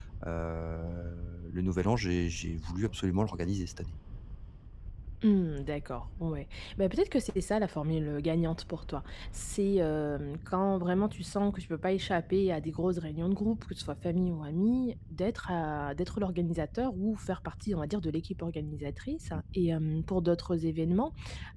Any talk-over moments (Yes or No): No